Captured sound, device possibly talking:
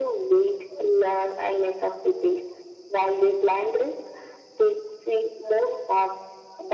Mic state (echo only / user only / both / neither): echo only